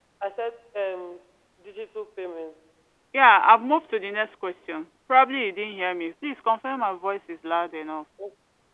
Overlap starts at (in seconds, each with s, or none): none